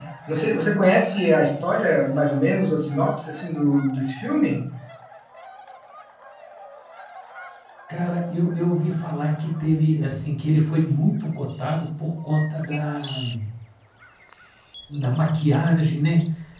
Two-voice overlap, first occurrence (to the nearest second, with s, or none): none